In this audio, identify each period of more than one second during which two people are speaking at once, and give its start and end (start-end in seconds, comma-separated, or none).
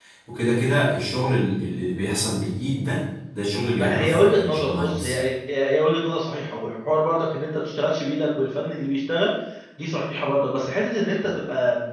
3.8-5.2